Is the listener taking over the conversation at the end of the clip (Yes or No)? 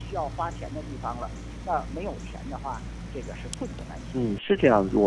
Yes